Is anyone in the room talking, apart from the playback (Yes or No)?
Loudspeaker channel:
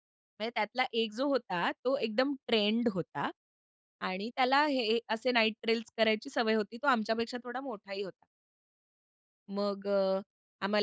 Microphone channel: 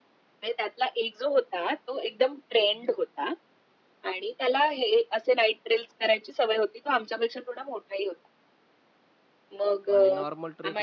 Yes